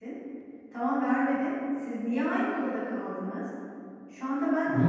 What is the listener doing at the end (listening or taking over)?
taking over